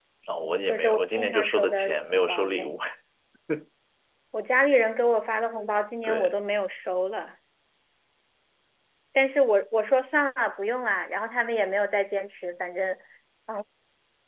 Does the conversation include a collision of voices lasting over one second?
Yes, from 0.7 s

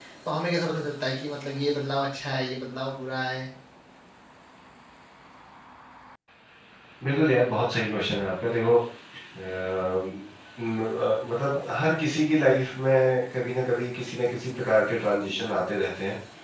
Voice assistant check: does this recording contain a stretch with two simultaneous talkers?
No

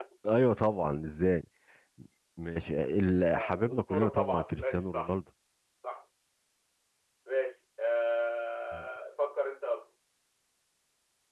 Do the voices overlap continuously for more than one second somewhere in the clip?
Yes, from 3.4 s

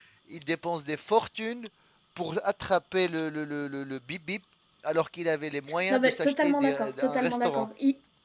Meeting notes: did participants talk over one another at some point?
Yes, from 5.9 s

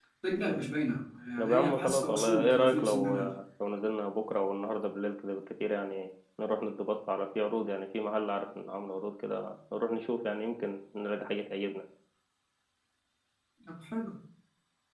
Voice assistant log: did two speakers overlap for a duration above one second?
Yes, from 1.4 s

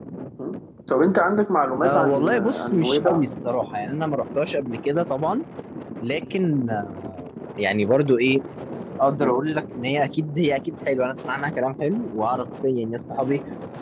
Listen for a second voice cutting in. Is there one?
Yes, from 1.8 s

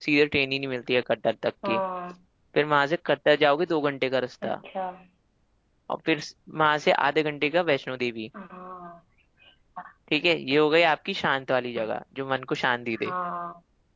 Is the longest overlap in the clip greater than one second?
No

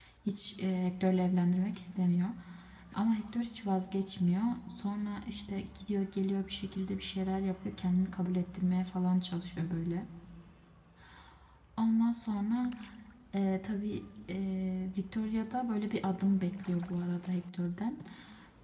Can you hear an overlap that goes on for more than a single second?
No

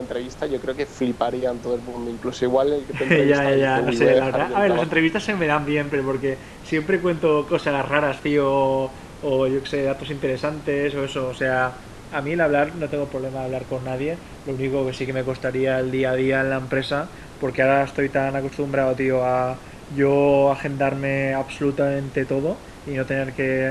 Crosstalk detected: Yes, from 3.1 s

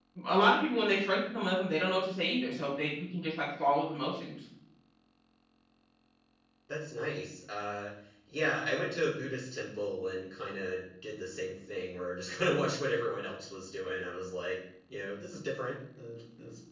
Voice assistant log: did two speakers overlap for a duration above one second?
No

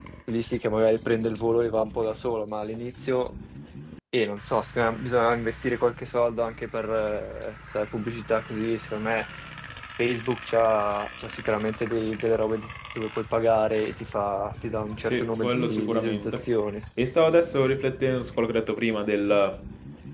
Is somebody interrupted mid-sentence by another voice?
Yes, from 15.1 s

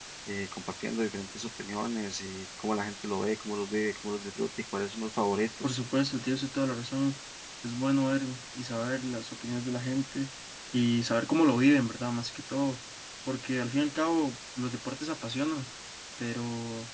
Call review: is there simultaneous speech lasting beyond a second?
No

